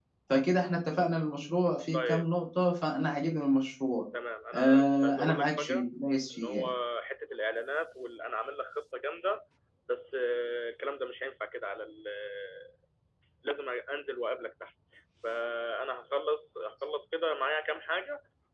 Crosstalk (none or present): present